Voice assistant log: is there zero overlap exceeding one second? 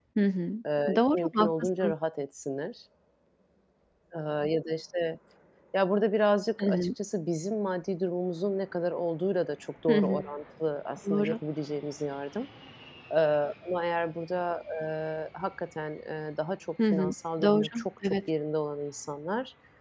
No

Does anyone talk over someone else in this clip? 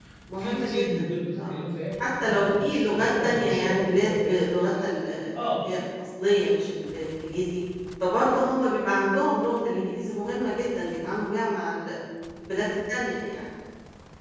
Yes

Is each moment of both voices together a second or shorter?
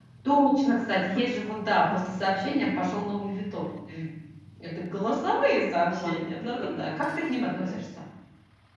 No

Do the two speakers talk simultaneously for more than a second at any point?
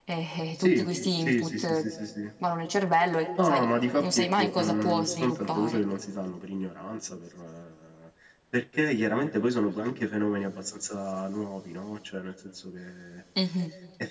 Yes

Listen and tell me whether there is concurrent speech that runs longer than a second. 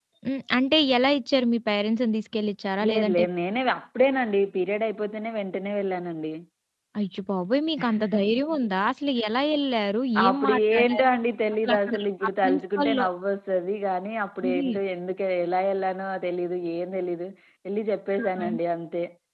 Yes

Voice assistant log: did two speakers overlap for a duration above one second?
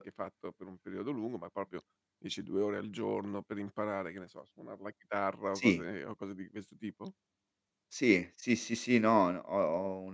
No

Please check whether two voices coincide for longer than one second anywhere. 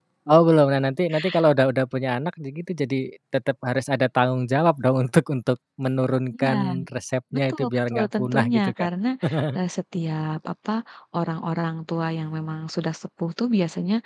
Yes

